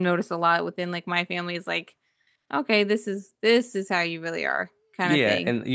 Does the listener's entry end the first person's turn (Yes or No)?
Yes